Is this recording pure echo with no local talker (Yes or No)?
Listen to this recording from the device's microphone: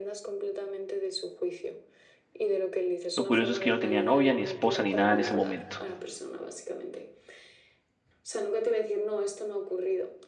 No